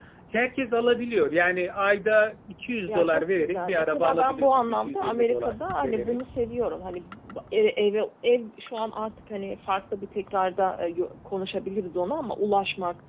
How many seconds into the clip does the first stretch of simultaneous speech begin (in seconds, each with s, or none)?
2.9 s